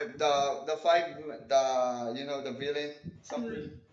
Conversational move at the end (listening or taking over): taking over